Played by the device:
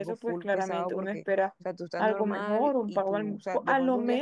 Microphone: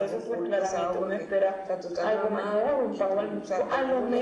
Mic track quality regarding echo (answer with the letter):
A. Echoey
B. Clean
A